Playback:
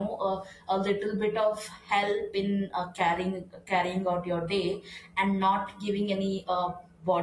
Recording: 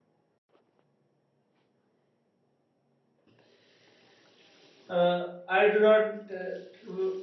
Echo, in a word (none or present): none